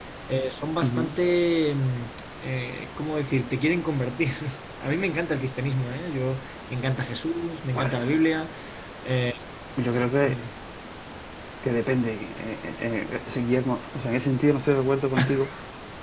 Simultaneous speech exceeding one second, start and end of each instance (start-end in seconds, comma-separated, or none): none